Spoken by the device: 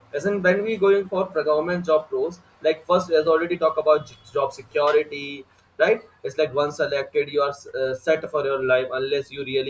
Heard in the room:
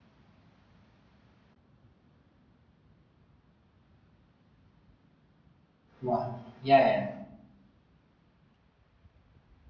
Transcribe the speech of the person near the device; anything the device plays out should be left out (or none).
yeah, yeah, yeah,